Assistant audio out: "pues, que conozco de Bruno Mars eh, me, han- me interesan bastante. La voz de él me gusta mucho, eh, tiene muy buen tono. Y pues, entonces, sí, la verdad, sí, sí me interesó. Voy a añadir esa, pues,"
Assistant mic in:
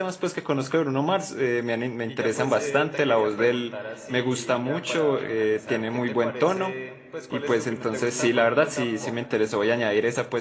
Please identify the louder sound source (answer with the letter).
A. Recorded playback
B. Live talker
A